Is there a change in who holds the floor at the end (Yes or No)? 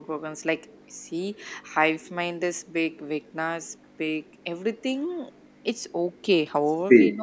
No